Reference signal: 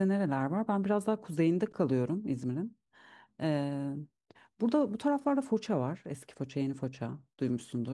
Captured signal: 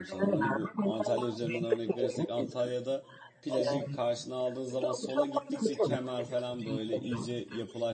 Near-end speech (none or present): present